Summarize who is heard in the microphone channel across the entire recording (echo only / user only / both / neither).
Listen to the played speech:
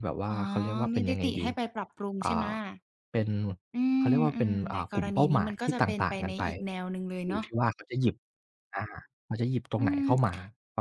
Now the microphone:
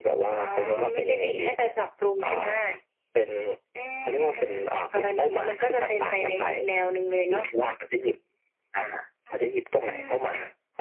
both